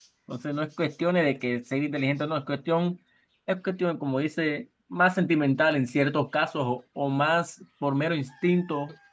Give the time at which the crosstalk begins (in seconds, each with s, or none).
none